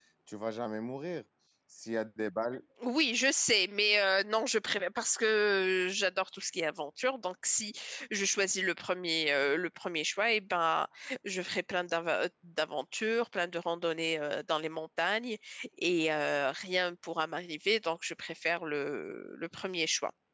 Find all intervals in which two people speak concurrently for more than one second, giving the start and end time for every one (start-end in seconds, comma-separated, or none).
none